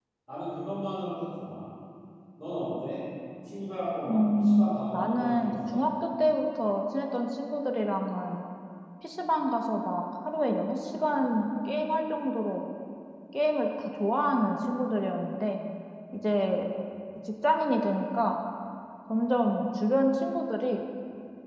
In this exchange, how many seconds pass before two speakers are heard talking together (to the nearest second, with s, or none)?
4 s